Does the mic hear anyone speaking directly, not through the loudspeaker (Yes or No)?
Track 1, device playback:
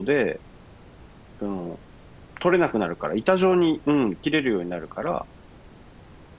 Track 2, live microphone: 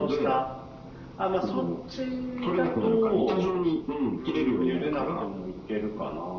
Yes